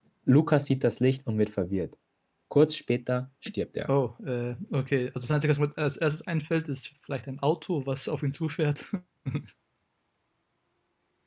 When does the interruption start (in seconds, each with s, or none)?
none